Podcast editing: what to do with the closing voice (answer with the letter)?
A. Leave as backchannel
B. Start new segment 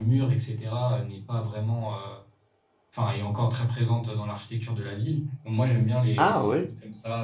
A